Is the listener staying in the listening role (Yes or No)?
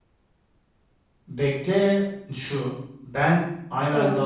Yes